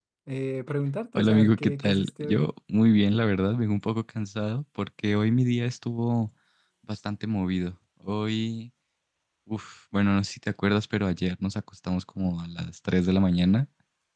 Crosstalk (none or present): present